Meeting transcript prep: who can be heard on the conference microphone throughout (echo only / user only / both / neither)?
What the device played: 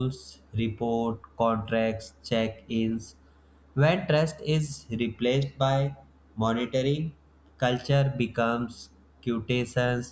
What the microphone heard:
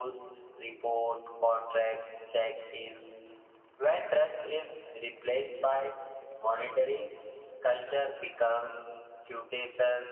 echo only